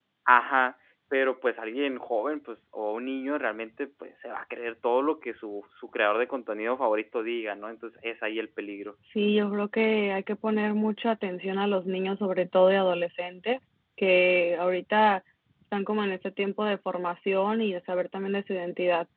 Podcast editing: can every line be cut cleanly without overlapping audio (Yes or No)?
Yes